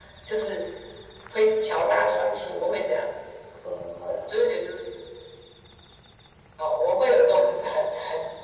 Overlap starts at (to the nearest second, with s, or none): 2 s